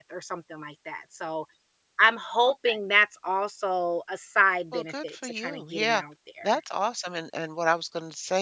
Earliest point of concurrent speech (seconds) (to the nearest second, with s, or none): 5 s